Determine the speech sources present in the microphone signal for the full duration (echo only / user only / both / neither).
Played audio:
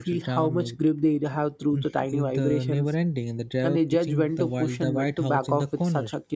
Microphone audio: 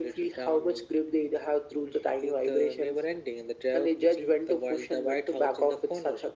echo only